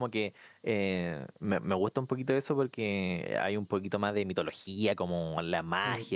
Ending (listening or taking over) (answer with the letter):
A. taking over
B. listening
B